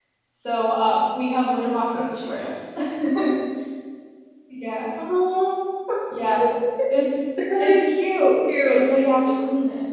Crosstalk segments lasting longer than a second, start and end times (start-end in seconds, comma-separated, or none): none